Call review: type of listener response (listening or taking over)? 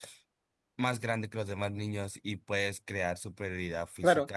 taking over